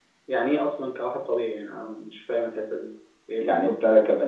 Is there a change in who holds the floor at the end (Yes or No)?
Yes